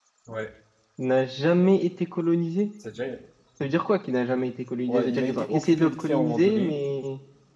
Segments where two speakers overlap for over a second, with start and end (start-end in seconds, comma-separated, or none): 4.9-6.7